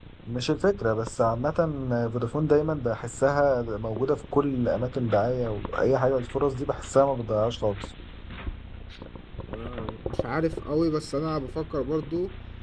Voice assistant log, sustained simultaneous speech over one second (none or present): none